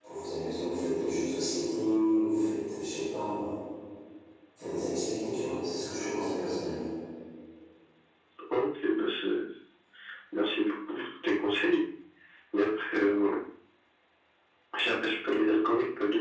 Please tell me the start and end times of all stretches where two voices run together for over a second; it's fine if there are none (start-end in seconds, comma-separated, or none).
none